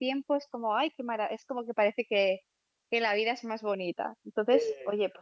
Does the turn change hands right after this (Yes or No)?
No